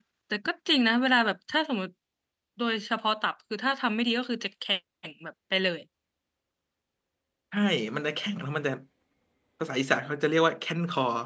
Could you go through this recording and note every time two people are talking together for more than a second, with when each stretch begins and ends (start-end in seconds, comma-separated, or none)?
none